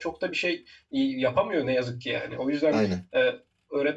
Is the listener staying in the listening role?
Yes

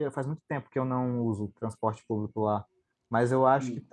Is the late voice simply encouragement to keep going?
Yes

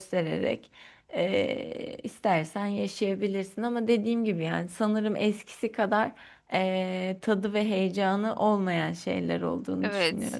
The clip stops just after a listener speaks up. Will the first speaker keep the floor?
No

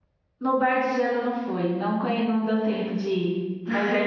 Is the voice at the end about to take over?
Yes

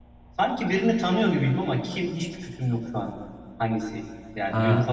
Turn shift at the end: Yes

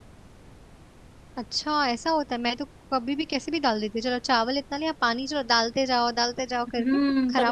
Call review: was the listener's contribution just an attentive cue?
No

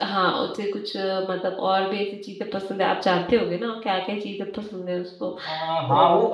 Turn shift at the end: Yes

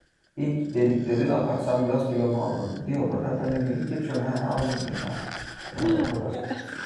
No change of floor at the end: Yes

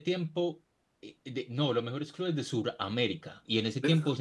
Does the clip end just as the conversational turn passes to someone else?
No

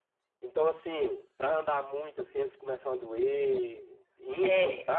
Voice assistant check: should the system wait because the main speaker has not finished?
No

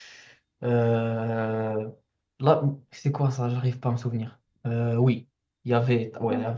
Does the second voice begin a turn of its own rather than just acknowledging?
No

